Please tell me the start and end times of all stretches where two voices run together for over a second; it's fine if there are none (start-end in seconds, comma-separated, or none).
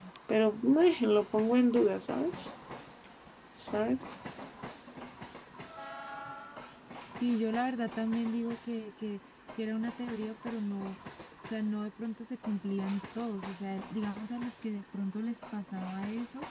none